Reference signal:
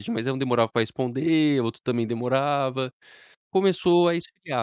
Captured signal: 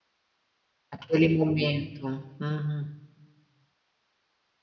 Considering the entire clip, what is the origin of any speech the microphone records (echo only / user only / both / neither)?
user only